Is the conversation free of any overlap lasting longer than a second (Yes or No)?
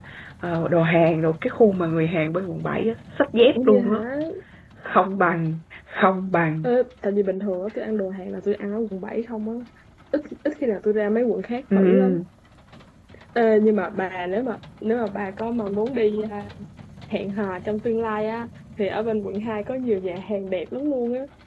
Yes